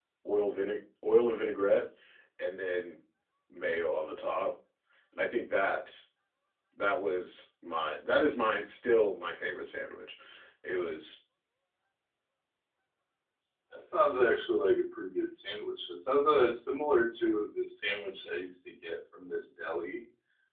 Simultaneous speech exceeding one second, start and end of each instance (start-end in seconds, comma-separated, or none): none